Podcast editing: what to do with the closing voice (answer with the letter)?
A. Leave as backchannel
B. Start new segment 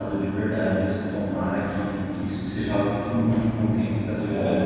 B